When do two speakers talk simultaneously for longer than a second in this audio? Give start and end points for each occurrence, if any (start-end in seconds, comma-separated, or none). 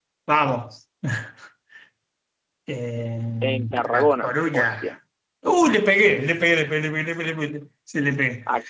3.4-5.0